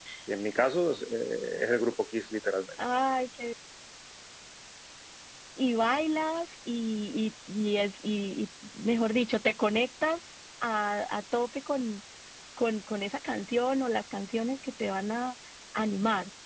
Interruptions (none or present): none